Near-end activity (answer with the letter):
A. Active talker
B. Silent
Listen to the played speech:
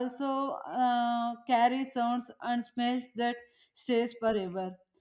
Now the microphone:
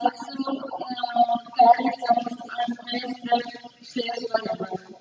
B